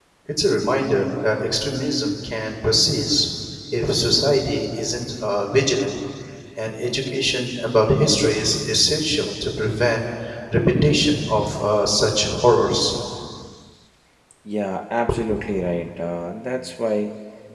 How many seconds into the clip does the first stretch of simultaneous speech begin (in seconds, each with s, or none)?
none